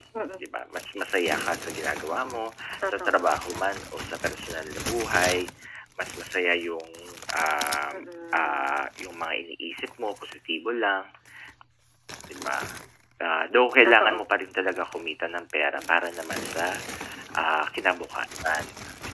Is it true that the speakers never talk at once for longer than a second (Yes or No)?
Yes